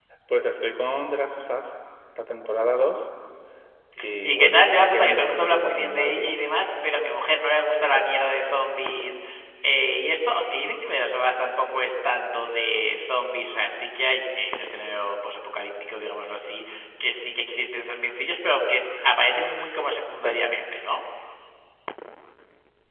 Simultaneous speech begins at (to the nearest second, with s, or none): 4 s